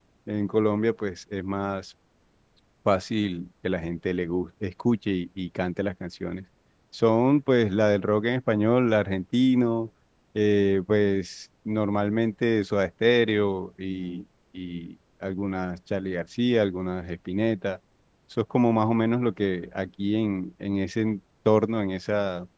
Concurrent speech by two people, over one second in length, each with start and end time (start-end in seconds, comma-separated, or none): none